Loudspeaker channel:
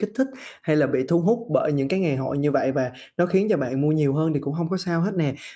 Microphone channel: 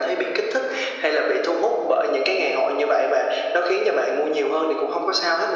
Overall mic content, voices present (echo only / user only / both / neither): echo only